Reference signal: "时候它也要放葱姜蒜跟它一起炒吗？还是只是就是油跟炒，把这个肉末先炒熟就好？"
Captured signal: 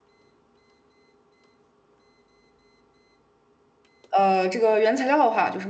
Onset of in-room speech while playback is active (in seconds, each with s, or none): 4.1 s